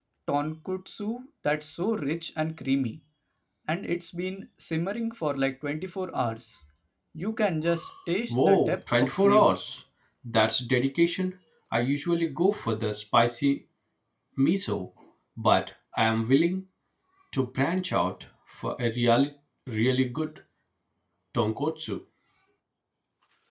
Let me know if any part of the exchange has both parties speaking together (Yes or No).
Yes